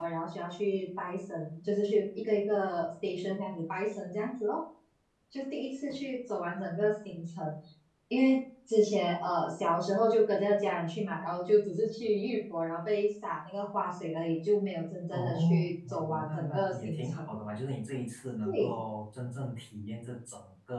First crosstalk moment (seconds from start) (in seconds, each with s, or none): 15.1 s